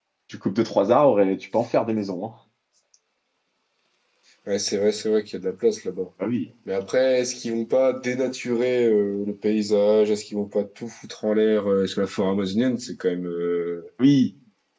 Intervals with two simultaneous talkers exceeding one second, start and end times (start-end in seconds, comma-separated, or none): none